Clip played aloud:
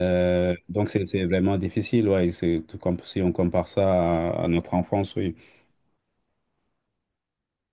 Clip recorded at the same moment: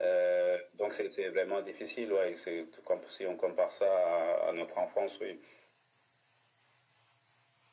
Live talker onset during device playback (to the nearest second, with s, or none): none